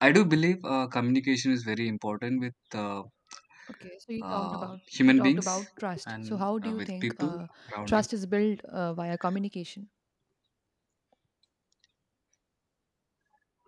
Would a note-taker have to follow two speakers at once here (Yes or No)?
Yes